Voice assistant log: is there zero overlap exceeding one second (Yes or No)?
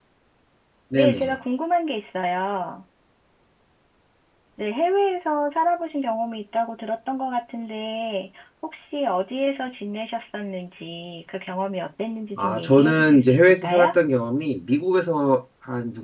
No